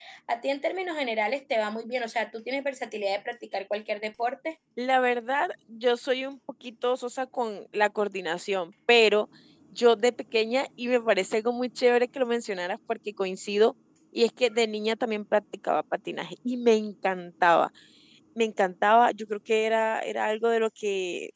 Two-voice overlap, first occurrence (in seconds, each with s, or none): none